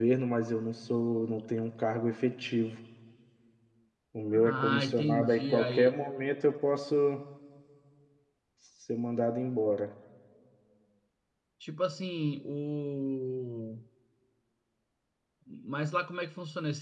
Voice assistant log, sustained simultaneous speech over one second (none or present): present